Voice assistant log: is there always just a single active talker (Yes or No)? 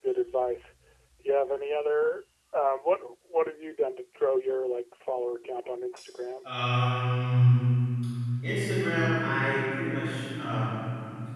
Yes